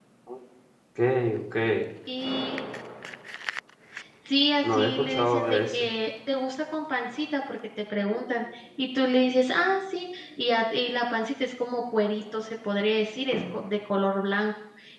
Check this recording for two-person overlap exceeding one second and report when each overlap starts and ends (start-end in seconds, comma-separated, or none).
4.6-5.9